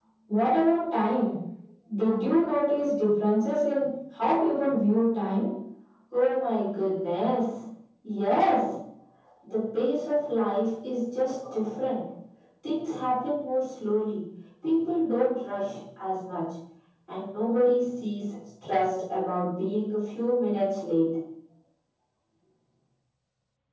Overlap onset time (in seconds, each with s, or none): none